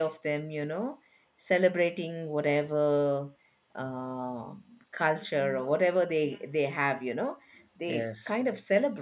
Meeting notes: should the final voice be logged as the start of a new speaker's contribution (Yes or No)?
No